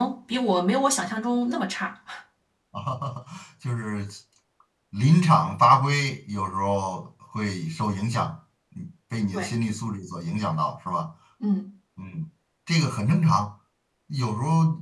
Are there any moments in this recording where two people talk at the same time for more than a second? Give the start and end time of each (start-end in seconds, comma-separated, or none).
none